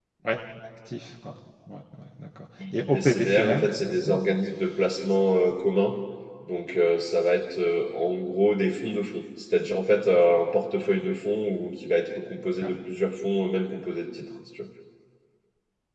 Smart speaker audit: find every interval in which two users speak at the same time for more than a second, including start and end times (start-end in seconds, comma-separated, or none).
2.9-4.2